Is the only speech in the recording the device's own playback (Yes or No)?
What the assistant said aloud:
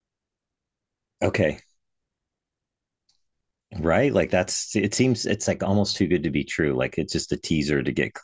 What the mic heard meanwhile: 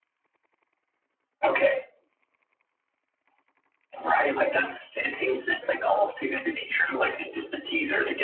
Yes